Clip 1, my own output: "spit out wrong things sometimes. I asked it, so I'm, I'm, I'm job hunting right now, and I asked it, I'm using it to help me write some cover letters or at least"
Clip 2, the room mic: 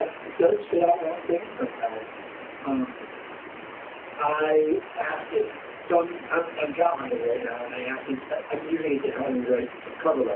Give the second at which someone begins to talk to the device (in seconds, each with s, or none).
none